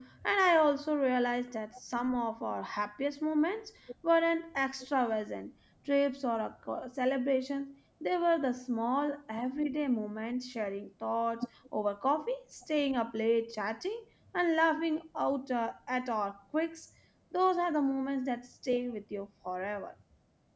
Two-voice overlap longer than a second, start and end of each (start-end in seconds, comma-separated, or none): none